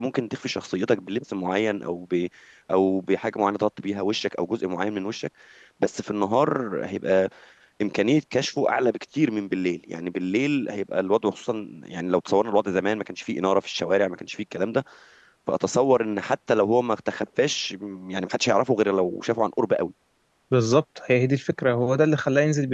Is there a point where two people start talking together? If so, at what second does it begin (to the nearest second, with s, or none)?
none